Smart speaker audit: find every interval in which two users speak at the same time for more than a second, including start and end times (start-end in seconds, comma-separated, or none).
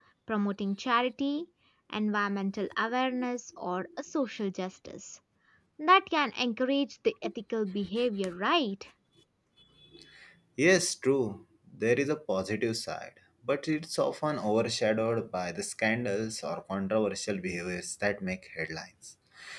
none